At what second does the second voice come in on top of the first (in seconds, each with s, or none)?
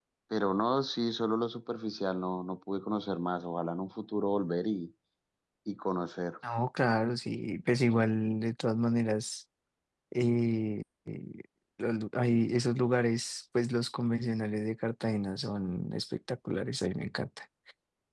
none